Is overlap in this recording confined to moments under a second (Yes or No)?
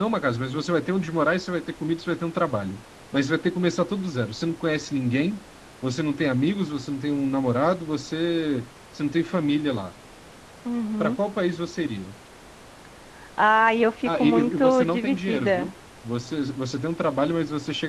No